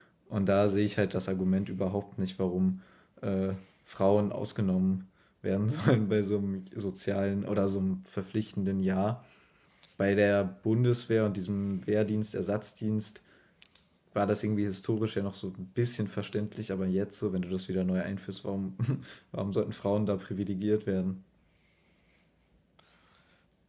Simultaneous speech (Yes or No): No